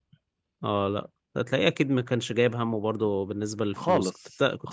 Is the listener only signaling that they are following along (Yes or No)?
No